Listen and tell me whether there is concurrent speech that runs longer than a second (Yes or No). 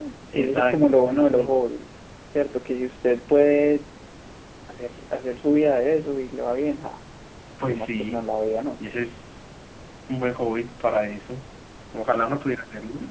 Yes